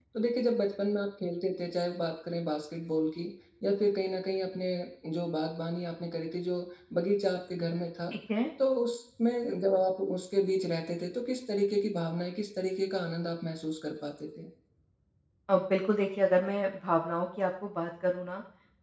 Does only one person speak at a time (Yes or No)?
Yes